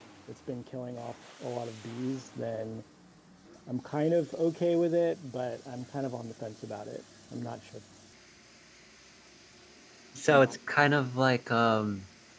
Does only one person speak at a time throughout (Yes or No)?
Yes